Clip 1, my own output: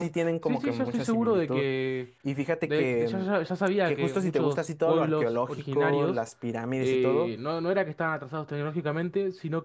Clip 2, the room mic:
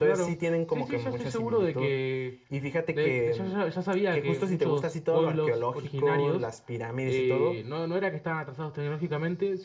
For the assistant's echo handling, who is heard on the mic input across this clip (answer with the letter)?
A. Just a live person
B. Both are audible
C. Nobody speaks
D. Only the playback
D